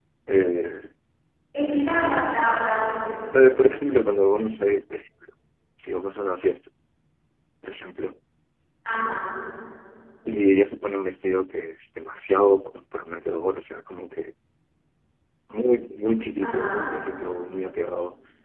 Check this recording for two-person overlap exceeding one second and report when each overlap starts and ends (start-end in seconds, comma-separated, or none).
none